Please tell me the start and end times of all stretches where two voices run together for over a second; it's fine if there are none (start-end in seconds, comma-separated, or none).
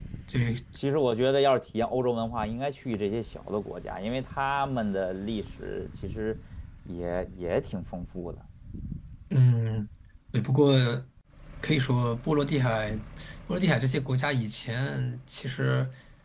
none